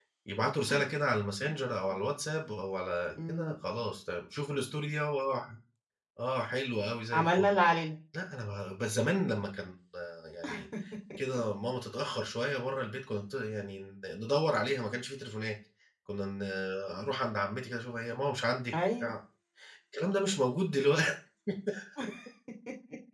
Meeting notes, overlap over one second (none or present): none